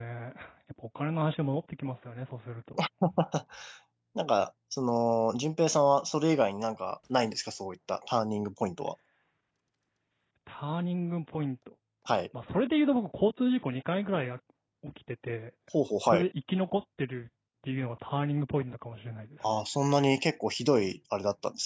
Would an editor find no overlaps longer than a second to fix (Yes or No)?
Yes